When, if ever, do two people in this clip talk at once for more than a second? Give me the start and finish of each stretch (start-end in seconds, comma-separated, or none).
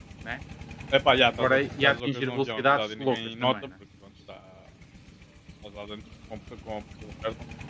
1.4-3.5